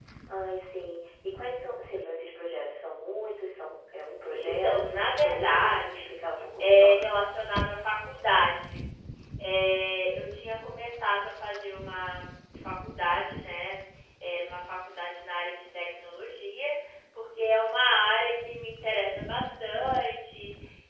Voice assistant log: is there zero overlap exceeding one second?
No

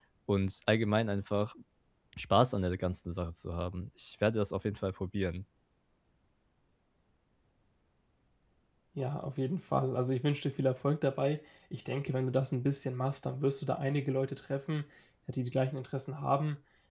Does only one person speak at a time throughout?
Yes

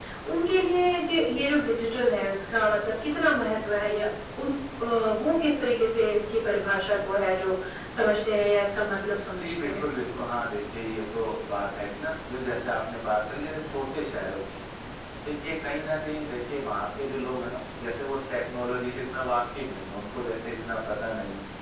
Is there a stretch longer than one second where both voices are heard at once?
No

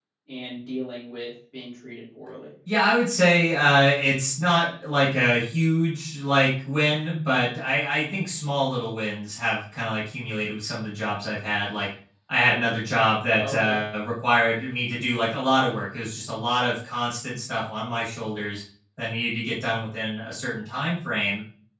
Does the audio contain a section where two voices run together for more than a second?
No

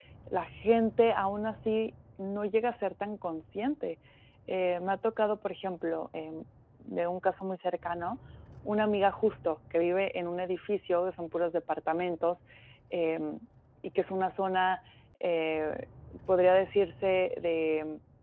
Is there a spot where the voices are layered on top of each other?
No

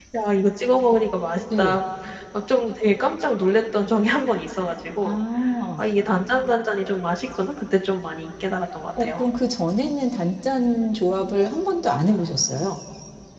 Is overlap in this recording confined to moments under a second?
Yes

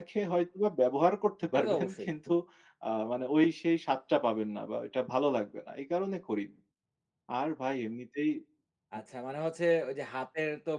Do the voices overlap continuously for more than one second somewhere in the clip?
No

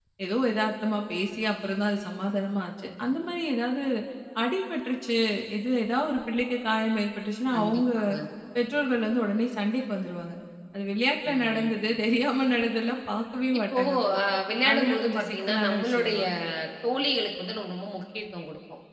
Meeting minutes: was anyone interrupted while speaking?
Yes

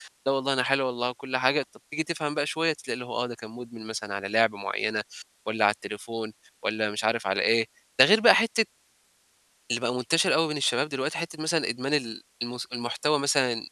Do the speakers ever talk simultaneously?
No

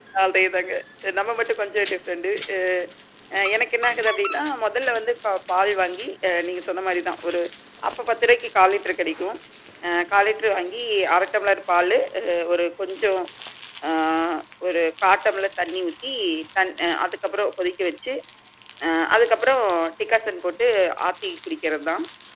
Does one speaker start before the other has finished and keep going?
No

